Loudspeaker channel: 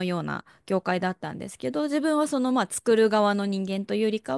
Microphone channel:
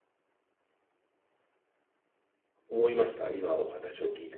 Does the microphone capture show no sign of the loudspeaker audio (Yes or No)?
Yes